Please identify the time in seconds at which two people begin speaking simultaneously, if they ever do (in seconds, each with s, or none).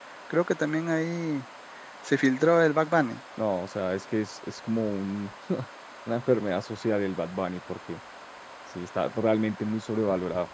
none